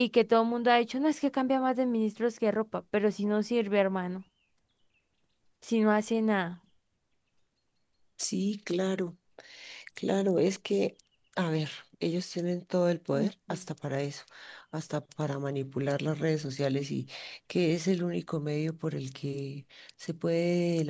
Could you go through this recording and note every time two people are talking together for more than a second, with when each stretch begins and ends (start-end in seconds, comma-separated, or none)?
none